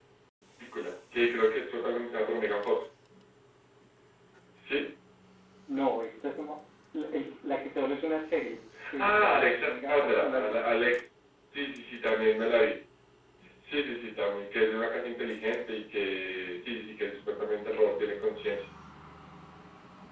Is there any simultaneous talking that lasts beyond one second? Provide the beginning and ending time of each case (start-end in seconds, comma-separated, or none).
9.0-10.5